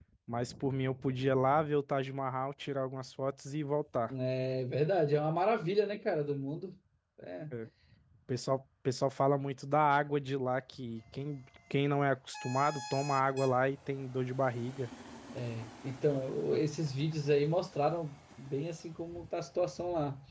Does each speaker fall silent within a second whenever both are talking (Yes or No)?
Yes